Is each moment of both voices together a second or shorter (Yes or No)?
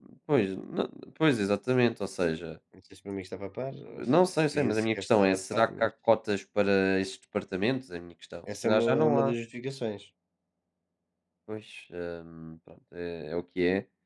No